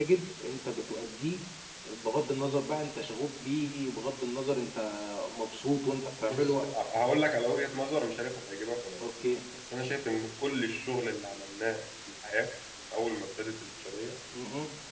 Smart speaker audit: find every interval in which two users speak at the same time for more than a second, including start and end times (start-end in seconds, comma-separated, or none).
none